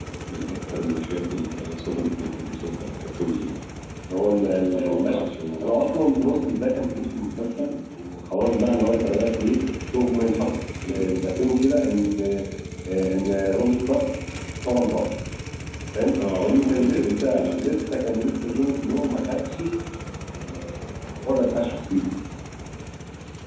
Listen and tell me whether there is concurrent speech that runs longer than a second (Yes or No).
Yes